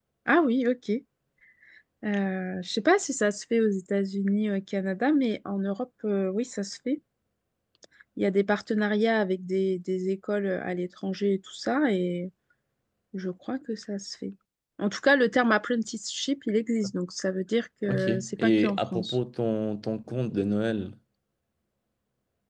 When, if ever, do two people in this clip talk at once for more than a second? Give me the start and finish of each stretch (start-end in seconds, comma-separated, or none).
17.9-19.2